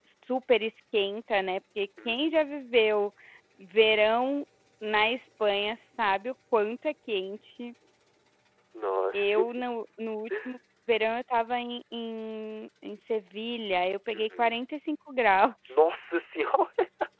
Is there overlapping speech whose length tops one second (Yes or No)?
No